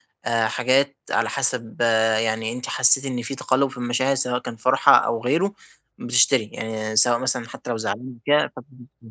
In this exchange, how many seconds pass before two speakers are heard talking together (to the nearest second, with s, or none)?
none